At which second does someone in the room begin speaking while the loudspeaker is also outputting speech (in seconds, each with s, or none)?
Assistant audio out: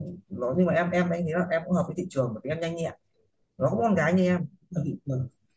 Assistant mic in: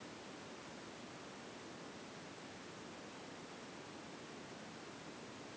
none